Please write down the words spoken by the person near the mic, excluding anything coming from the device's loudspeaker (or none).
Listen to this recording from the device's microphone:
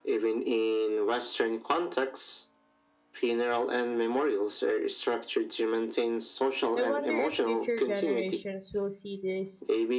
I wonder if future generations will see this